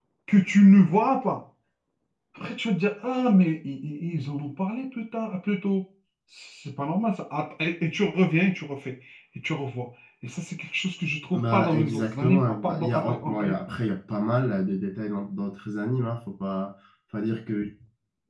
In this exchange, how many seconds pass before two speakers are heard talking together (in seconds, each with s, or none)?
11.3 s